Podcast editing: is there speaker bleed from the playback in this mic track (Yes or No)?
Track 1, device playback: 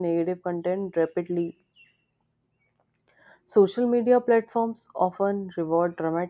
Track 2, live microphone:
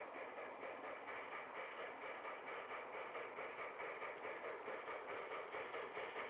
No